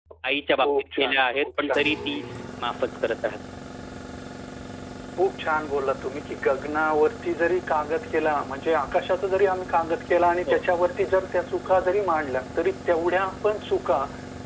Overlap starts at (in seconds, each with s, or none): 0.6 s